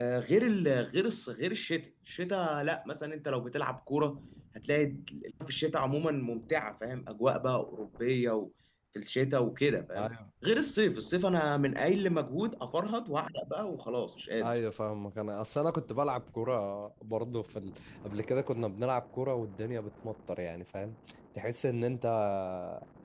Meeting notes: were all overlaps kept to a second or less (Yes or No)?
Yes